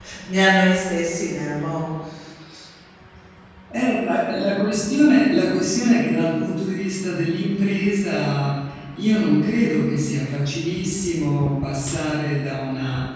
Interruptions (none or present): none